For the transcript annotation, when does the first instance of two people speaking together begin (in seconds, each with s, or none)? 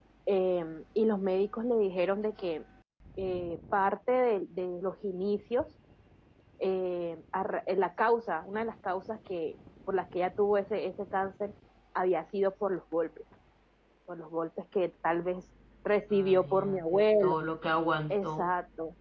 16.1 s